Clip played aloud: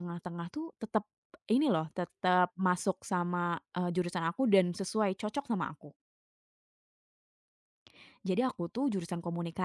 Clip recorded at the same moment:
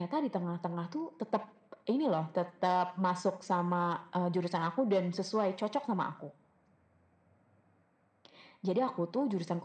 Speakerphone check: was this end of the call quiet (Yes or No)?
Yes